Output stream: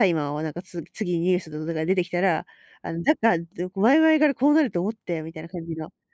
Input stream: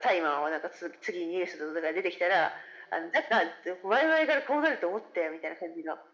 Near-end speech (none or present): none